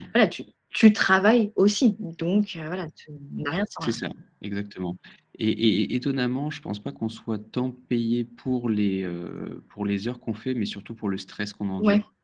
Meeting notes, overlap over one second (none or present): none